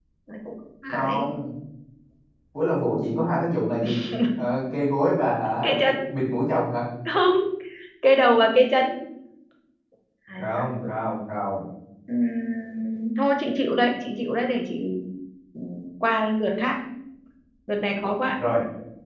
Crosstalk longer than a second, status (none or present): none